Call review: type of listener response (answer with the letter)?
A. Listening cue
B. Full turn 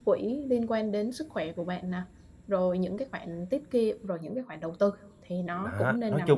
B